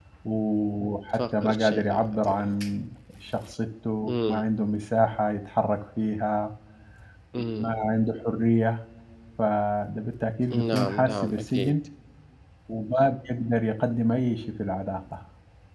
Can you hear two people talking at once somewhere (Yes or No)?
Yes